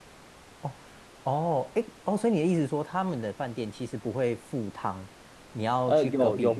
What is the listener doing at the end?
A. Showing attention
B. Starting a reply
B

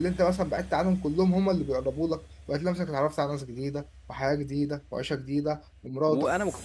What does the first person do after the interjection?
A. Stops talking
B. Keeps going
A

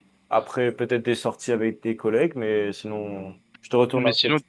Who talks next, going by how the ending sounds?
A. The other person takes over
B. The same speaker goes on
A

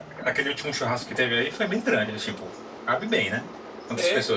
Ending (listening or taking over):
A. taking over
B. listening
A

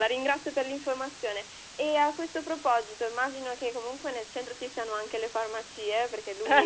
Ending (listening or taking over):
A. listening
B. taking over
A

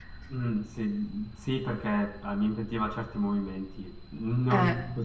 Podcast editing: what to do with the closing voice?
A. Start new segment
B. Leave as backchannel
B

